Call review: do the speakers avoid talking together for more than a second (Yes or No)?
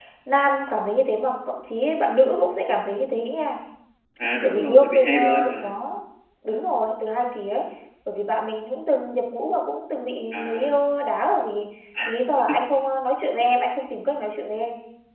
No